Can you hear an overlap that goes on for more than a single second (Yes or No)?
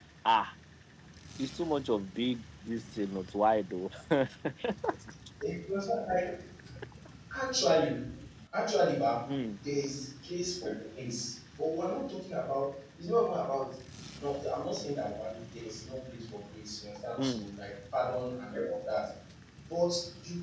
No